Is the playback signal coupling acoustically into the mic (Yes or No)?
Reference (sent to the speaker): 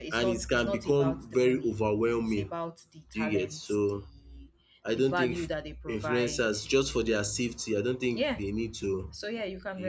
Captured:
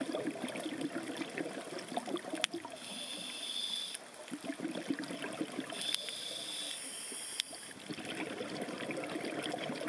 No